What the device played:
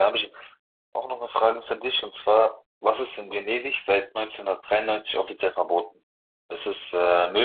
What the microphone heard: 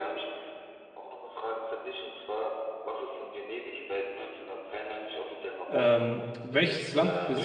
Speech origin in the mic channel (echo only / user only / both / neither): both